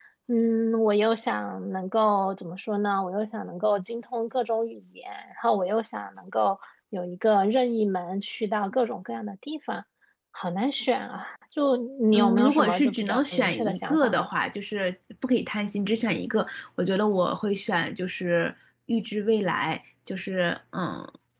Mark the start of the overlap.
12.1 s

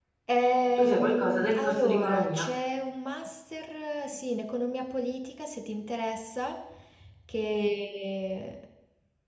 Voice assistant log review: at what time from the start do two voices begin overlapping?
0.8 s

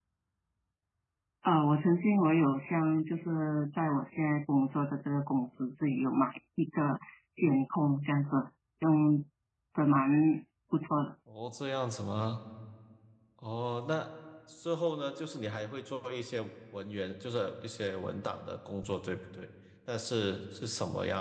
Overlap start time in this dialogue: none

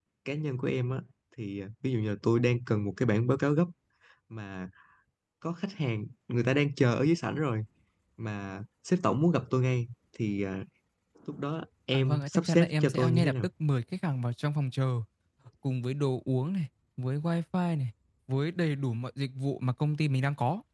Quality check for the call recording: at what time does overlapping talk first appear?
11.9 s

